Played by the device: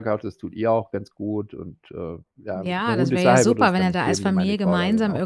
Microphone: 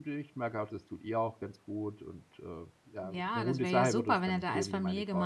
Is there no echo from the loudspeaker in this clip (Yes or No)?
No